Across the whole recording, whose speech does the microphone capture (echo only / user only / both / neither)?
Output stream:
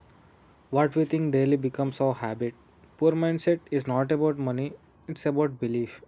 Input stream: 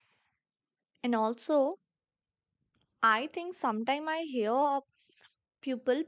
user only